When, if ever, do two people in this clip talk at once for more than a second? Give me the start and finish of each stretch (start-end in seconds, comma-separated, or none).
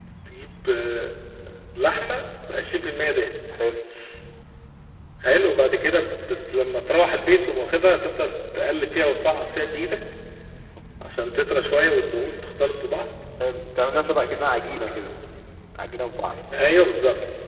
none